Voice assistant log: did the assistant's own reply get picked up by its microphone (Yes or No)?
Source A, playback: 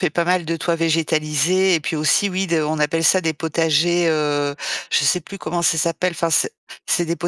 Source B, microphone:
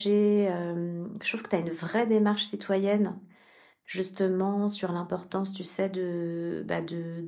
No